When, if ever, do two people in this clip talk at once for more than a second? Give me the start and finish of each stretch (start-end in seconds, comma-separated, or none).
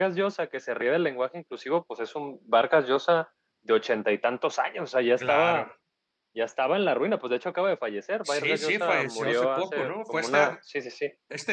8.2-10.6